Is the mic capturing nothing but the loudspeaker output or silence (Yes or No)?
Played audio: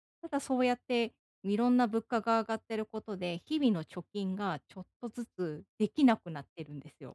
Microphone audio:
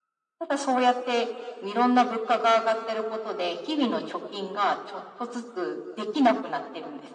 Yes